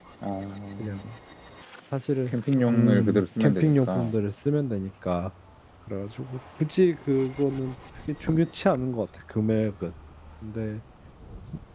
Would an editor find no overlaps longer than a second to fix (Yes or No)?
No